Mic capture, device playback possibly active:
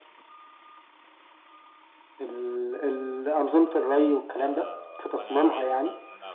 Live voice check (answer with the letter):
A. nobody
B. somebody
B